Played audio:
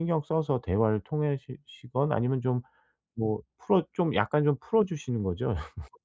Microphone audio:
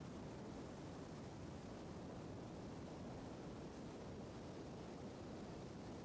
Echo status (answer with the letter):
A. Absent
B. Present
A